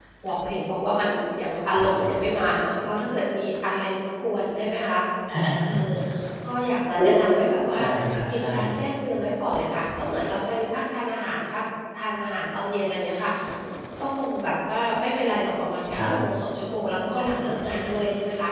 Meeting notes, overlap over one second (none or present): none